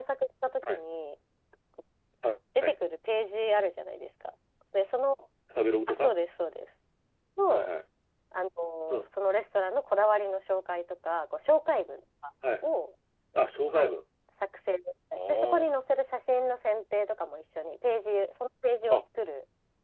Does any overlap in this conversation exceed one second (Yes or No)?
No